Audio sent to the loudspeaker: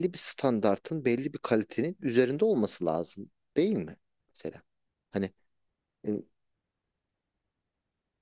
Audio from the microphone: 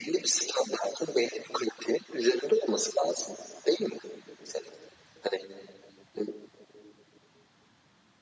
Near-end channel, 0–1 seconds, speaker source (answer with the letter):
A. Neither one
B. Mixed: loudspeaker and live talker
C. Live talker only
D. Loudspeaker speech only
D